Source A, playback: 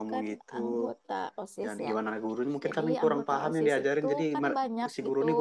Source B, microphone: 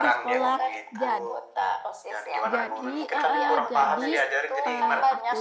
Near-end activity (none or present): present